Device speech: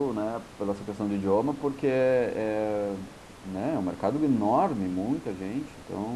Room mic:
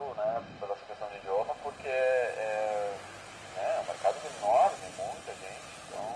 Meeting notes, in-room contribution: none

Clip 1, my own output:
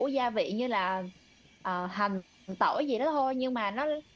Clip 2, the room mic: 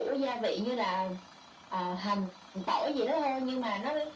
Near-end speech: none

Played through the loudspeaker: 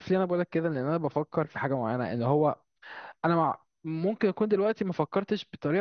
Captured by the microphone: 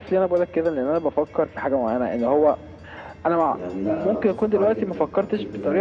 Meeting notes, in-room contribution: present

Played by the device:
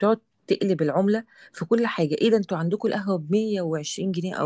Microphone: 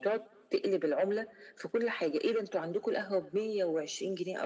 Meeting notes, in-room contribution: none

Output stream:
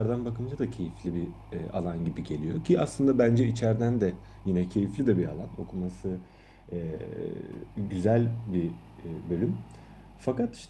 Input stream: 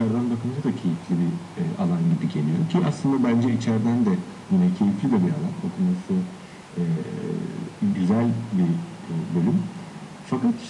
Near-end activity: none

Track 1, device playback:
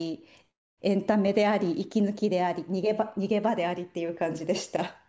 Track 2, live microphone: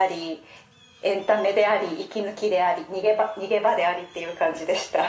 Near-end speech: none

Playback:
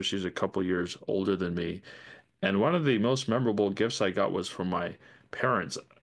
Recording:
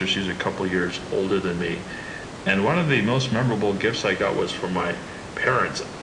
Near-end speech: none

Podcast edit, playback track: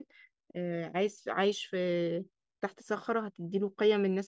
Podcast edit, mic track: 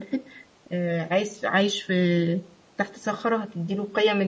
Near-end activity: none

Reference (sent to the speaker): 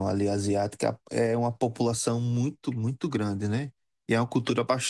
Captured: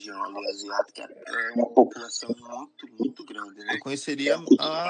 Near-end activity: present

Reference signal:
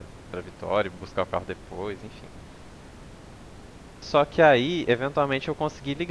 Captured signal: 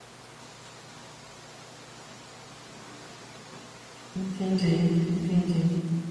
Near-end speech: present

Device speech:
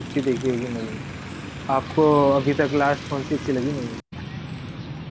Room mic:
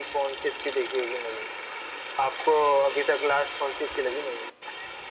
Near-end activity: none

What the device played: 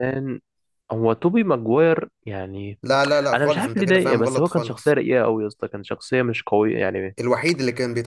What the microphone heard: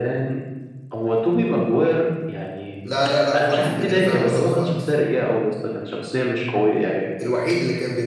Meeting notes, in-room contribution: none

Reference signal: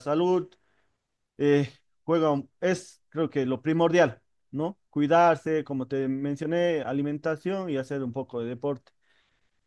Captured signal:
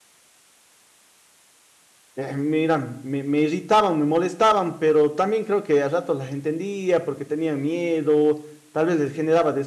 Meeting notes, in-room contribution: present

